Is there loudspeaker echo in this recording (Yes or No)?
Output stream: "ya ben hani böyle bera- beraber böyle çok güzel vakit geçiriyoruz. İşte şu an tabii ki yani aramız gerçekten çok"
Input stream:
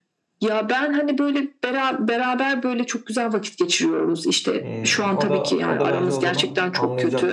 Yes